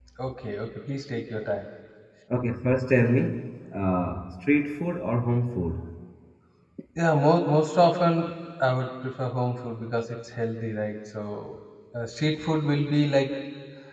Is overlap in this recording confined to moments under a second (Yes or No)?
Yes